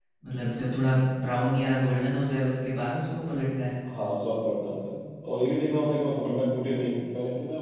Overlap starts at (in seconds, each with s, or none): none